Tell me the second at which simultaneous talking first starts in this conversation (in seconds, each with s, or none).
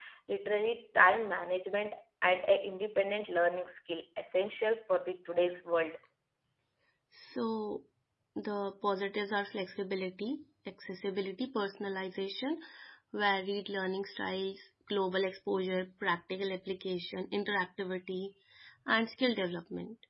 none